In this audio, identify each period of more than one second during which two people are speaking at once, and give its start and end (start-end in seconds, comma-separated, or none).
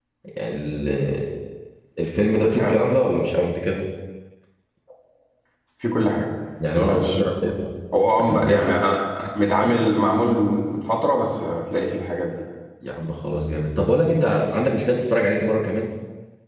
none